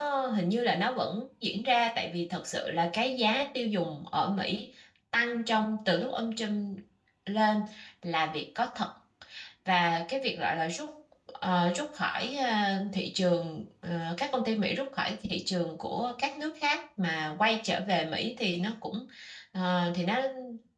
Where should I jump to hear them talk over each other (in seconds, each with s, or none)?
none